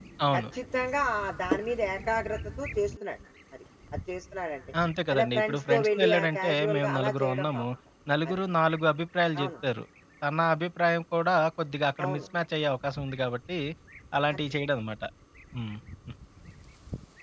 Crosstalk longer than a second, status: present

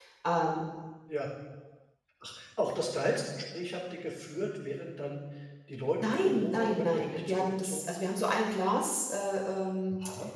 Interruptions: present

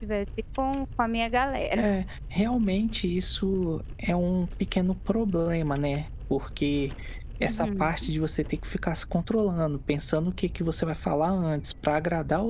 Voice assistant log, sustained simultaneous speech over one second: none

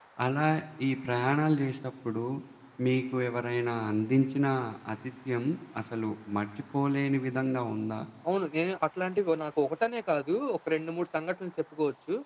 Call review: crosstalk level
none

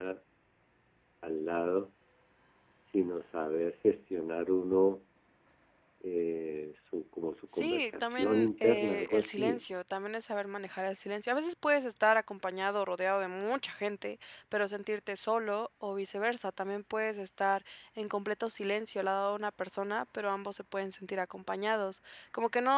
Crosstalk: present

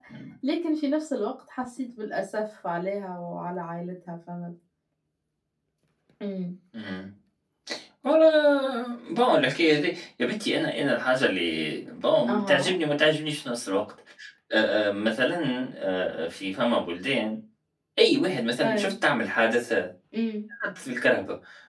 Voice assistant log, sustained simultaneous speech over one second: none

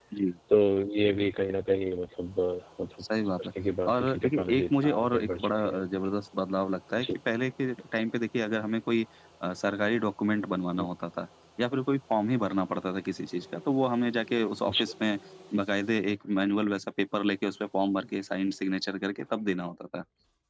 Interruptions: present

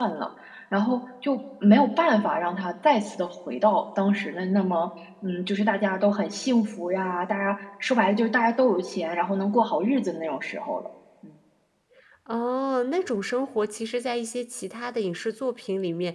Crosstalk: none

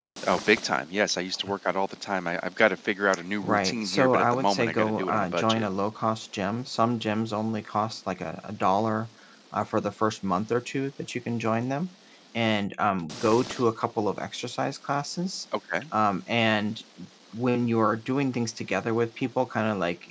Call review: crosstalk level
present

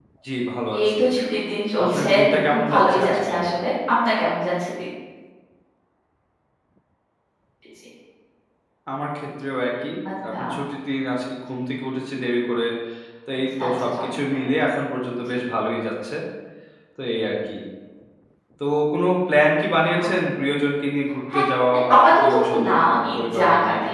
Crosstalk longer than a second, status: present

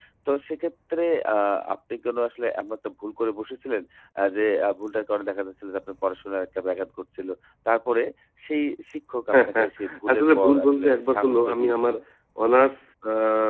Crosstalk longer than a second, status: present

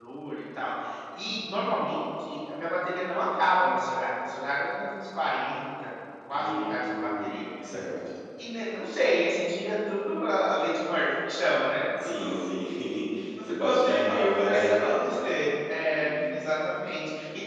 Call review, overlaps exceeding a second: present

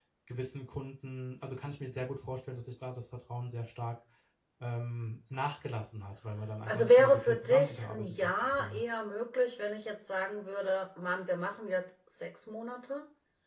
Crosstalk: present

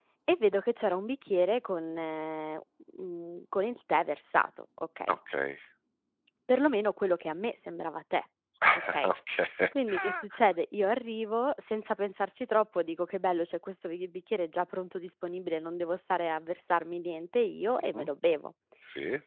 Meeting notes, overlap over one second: none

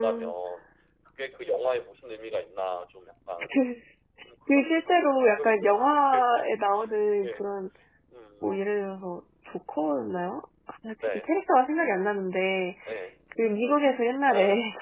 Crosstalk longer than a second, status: present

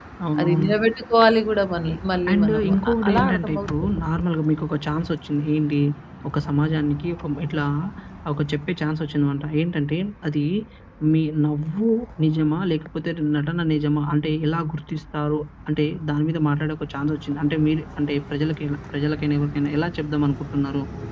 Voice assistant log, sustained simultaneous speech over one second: present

